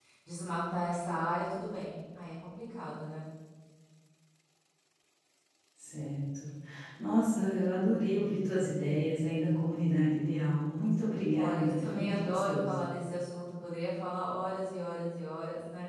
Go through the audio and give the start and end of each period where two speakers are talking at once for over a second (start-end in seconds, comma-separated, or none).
11.3-12.8